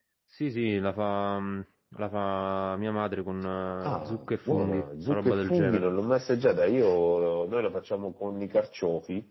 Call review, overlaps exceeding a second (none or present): present